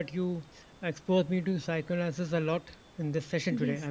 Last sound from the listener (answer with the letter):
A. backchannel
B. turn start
A